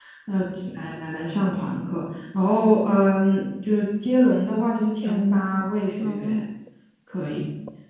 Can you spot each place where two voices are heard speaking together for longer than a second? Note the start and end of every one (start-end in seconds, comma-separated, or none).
5.0-6.4